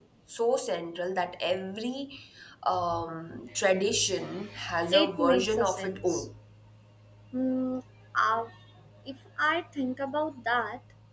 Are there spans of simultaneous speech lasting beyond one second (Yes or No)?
Yes